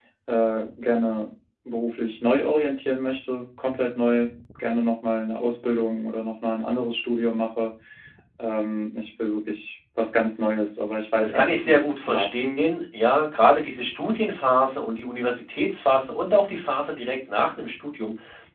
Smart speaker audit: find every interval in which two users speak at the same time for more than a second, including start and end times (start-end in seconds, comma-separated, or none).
11.2-12.4